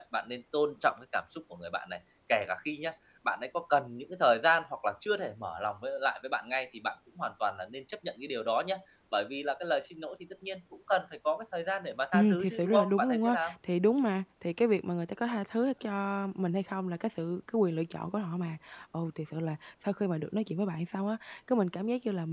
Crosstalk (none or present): present